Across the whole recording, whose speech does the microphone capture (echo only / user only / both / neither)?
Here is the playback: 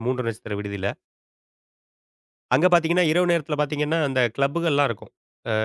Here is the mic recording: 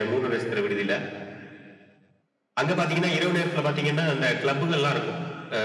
echo only